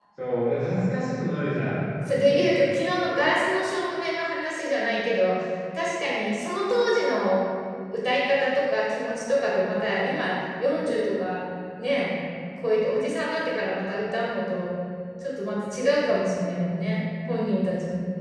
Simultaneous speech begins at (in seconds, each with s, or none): none